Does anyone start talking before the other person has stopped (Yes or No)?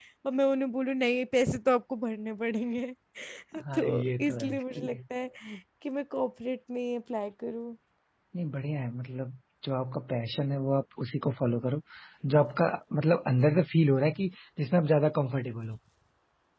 Yes